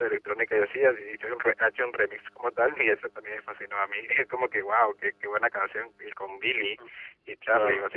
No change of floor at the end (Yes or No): Yes